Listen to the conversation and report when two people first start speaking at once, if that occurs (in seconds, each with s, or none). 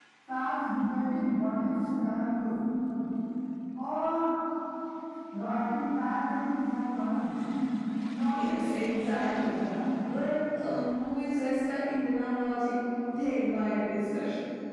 8.3 s